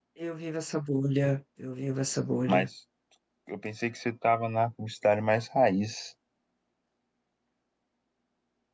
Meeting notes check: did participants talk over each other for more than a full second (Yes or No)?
No